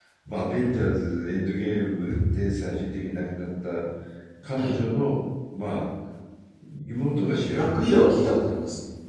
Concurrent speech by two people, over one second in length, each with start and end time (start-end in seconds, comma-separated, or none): none